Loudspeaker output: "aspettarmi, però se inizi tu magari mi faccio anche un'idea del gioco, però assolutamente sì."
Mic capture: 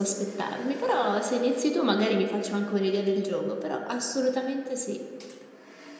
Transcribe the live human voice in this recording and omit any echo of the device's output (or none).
none